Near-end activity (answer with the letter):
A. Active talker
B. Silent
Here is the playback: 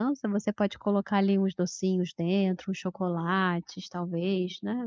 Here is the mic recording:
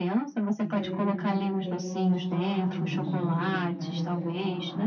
A